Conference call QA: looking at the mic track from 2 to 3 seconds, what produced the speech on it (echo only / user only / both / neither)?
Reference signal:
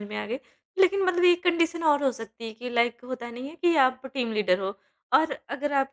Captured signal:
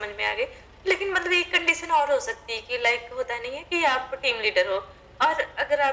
echo only